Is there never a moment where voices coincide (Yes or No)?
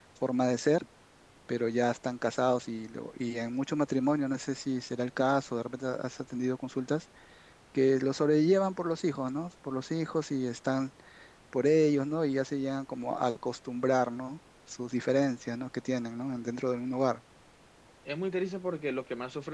Yes